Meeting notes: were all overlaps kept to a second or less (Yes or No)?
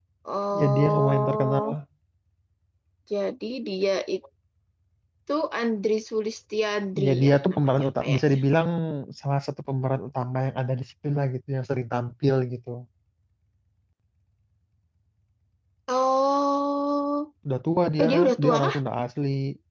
No